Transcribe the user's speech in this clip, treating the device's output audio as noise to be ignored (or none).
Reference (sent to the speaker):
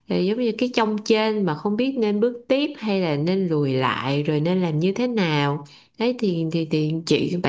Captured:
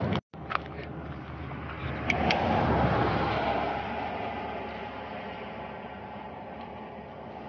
none